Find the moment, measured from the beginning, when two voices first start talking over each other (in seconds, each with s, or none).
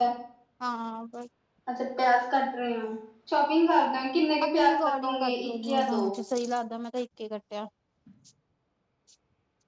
4.4 s